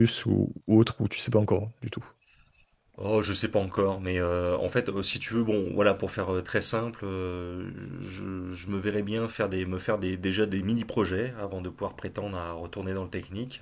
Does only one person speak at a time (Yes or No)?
Yes